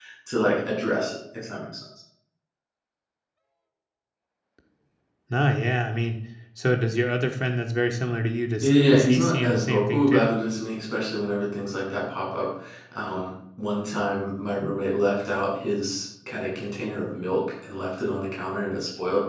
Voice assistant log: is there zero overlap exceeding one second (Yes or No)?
No